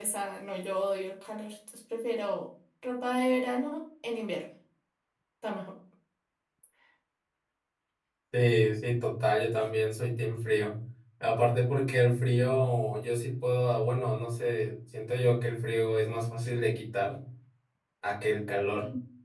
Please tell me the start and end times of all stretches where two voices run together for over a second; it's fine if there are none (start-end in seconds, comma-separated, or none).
none